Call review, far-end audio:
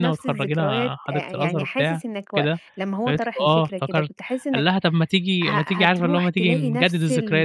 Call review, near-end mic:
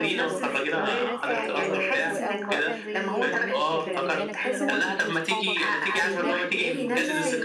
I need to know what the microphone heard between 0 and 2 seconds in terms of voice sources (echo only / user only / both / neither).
both